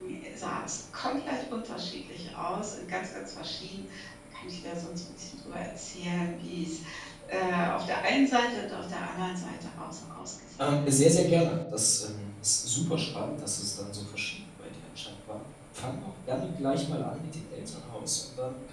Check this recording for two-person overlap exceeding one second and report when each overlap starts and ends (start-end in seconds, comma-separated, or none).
none